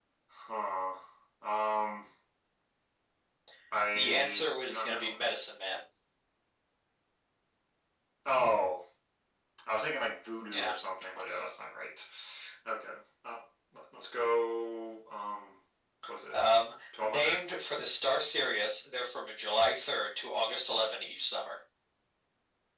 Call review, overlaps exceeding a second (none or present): present